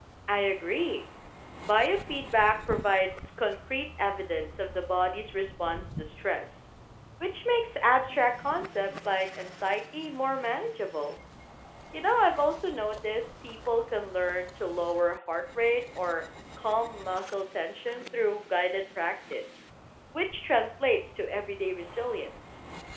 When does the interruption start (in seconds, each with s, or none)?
none